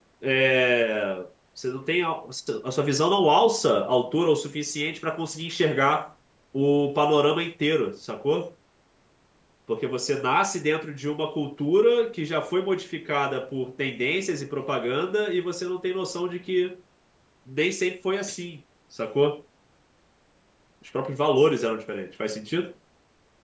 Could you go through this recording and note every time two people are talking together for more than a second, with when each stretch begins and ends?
none

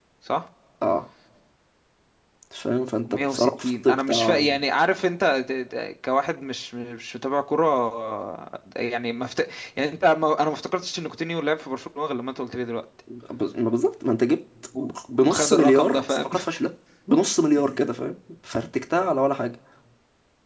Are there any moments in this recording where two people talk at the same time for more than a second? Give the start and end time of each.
3.1-4.4, 14.8-16.3

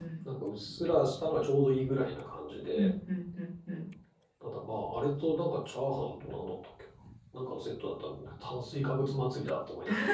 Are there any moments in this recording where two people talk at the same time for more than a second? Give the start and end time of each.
none

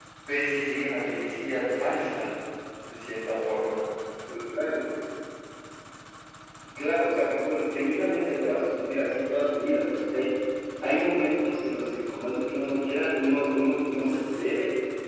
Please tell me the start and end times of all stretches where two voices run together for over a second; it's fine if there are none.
none

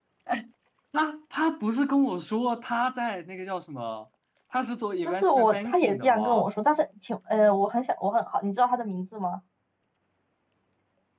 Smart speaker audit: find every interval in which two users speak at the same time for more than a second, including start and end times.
5.0-6.5

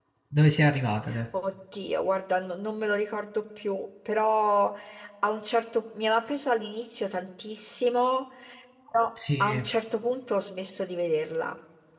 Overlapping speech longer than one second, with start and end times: none

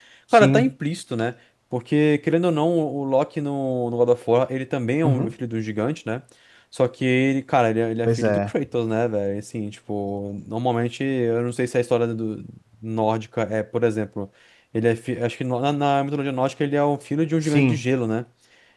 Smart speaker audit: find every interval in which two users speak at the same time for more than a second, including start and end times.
none

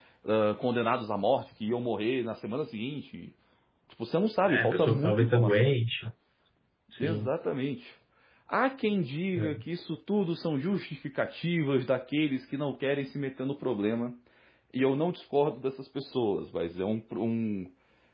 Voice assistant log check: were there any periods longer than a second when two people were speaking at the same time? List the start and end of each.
4.5-5.7

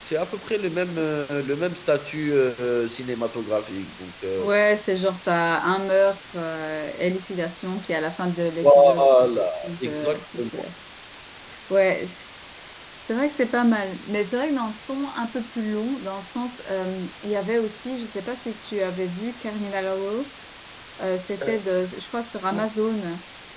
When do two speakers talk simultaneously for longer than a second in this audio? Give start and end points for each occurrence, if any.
8.6-10.4

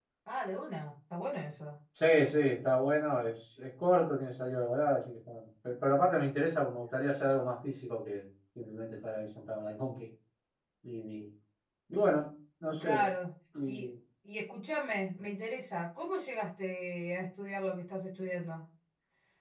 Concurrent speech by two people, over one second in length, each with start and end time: none

